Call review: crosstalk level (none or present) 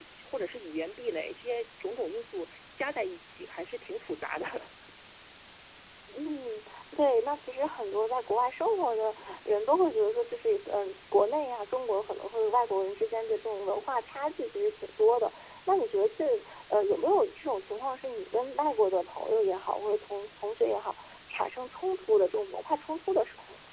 none